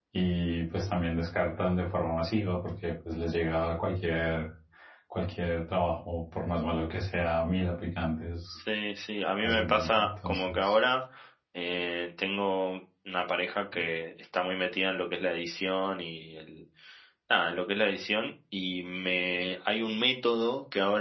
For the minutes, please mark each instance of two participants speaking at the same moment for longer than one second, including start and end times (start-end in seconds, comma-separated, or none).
9.4-10.8